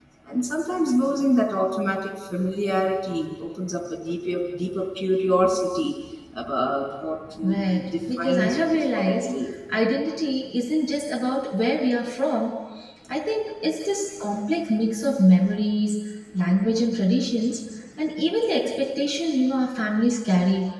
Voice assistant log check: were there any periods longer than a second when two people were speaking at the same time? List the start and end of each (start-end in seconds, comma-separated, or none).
7.4-9.3